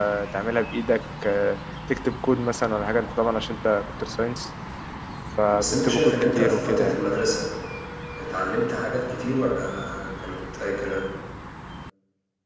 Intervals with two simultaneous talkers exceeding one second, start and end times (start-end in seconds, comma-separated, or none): 5.5-7.2